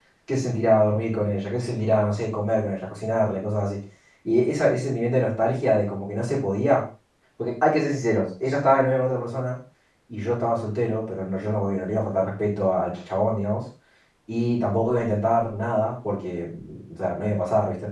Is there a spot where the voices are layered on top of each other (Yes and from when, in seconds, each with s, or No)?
No